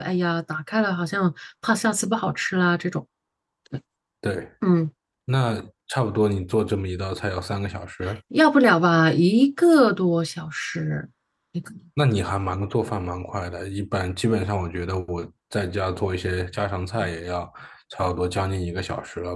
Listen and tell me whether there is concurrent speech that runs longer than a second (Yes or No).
No